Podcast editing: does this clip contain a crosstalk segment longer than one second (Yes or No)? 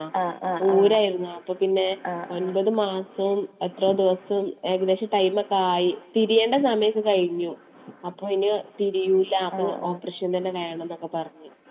No